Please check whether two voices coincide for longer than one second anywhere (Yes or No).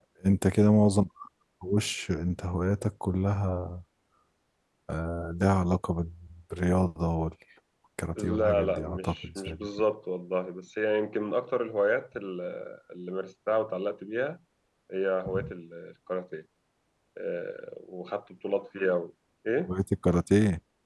Yes